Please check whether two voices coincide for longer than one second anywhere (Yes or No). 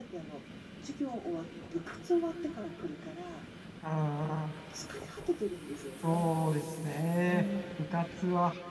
No